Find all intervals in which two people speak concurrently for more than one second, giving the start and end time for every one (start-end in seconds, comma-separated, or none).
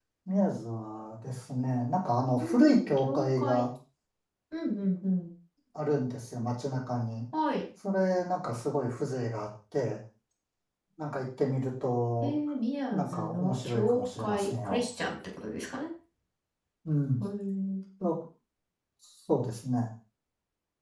2.4-3.6, 12.9-14.8